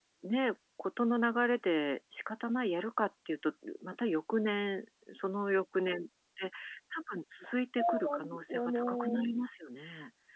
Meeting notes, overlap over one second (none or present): present